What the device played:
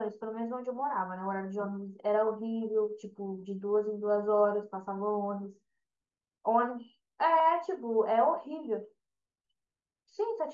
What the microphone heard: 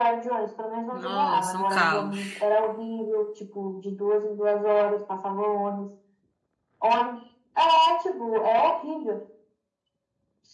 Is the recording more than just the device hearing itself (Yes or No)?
Yes